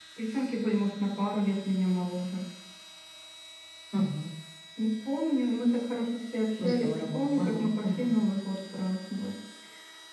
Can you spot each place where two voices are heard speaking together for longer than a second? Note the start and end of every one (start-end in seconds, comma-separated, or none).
6.6-8.1